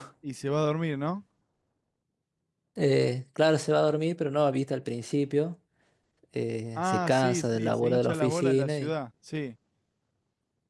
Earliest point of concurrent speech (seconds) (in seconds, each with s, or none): 6.8 s